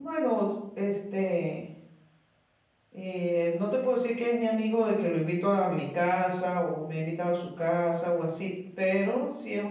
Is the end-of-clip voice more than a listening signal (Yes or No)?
Yes